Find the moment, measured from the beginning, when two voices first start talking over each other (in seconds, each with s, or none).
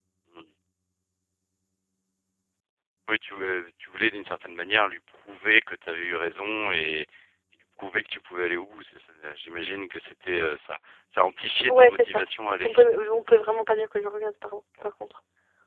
11.7 s